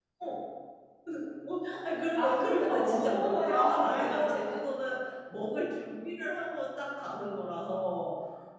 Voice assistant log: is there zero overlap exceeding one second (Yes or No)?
No